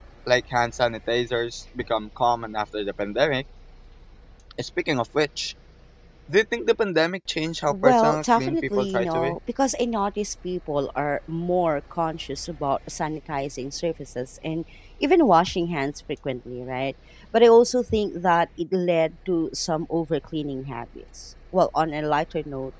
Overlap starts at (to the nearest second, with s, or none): 8 s